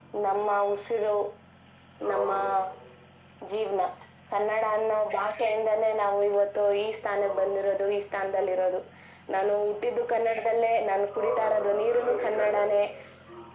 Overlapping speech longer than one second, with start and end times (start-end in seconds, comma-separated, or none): 11.1-12.6